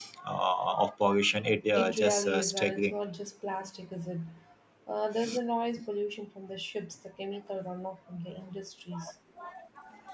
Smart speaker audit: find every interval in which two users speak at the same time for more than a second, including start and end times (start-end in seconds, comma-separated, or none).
1.8-3.0